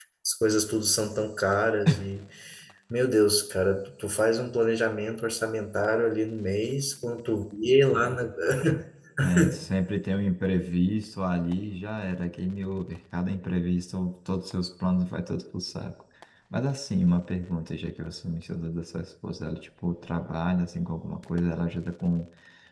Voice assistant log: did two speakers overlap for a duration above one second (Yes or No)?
No